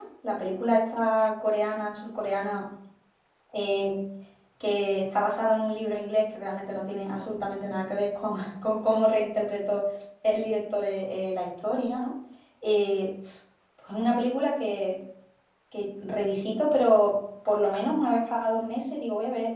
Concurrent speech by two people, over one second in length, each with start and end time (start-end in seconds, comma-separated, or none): none